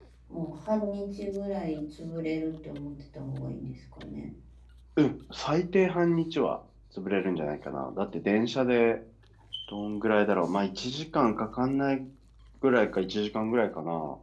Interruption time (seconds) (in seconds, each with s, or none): none